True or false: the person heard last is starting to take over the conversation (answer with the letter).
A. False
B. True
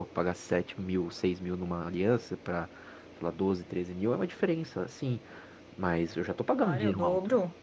B